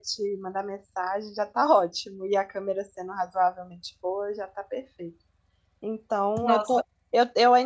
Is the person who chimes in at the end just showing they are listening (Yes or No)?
Yes